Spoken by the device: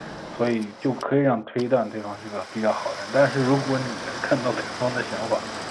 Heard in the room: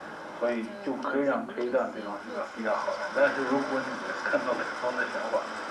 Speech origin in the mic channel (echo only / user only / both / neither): both